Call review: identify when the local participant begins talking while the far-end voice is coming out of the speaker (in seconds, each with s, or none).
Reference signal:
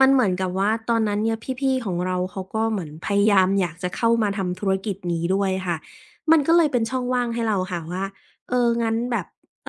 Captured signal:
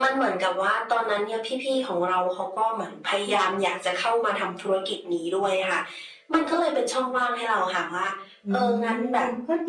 8.5 s